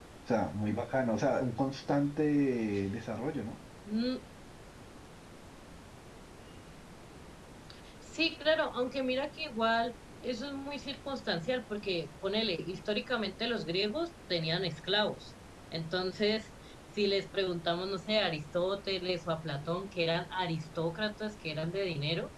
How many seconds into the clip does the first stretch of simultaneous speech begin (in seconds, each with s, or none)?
none